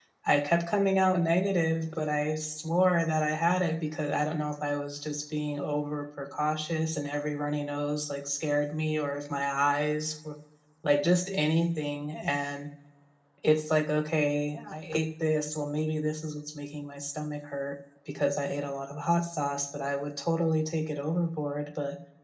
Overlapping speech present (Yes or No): No